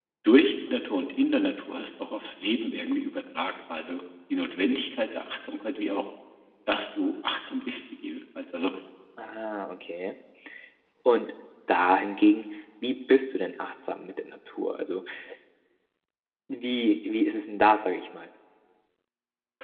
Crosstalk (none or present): none